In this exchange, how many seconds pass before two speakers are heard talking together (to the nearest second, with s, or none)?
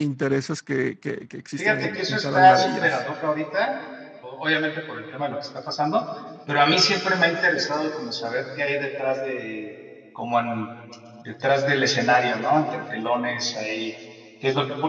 2 s